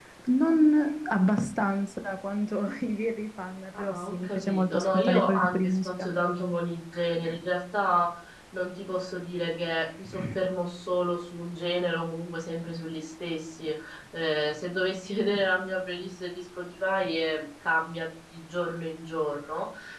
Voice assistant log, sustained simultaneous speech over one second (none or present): present